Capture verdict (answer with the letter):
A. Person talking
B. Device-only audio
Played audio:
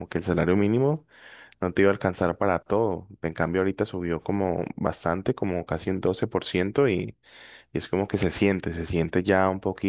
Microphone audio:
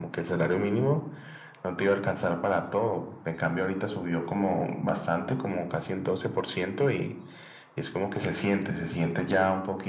B